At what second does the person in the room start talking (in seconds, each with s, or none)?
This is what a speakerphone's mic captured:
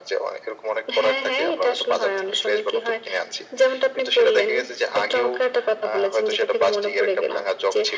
none